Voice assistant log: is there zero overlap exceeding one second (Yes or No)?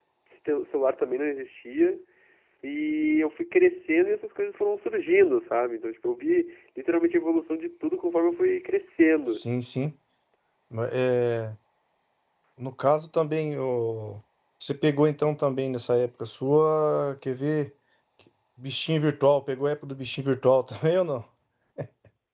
Yes